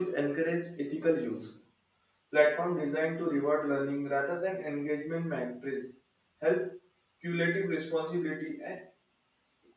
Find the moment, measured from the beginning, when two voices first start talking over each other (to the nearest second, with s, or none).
none